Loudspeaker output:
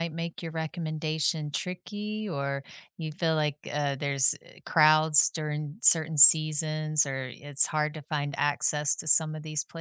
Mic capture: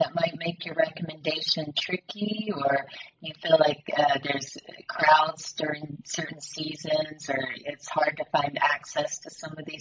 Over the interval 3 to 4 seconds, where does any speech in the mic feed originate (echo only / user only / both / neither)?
echo only